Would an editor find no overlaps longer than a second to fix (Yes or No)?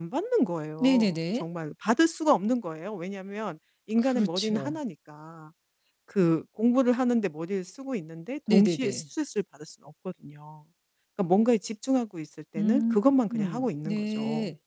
No